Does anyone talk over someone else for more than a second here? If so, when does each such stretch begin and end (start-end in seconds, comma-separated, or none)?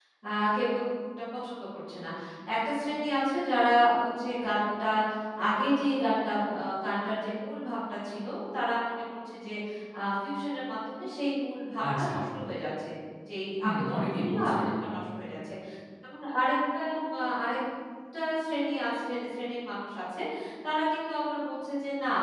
13.6-14.9